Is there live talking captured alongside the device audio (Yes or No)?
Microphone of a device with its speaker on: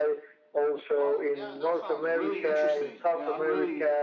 Yes